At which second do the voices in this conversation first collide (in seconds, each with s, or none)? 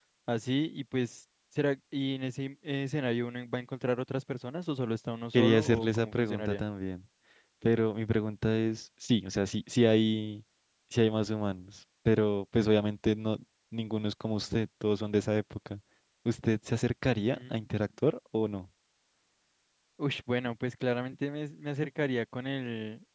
5.3 s